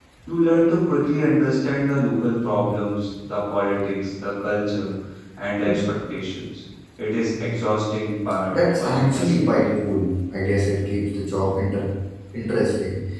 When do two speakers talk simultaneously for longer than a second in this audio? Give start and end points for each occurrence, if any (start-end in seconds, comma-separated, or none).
8.5-9.7